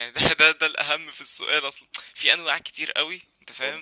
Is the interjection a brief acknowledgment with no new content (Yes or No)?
Yes